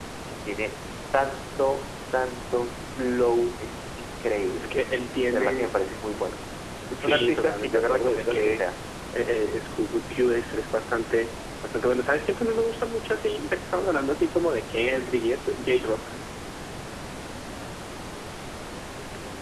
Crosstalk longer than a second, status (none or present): present